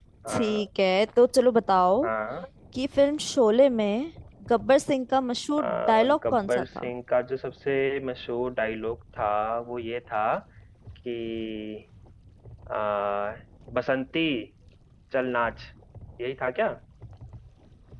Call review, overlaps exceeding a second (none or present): present